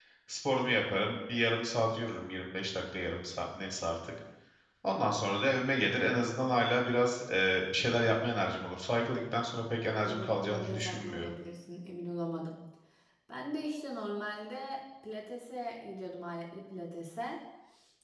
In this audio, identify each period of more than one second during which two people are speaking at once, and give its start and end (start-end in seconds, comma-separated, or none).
9.8-11.3